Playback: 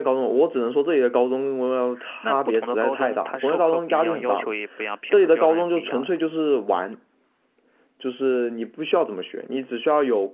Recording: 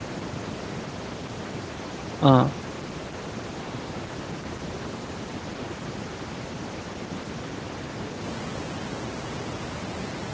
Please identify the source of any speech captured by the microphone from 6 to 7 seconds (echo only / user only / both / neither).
neither